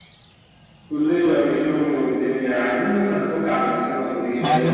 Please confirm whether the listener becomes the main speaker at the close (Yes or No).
Yes